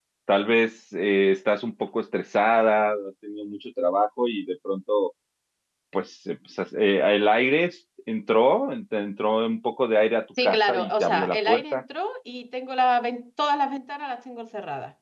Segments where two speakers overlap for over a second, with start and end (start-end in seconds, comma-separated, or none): 10.4-11.8